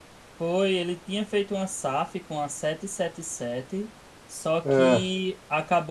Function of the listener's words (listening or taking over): listening